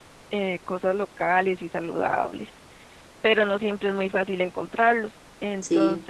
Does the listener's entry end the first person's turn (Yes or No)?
No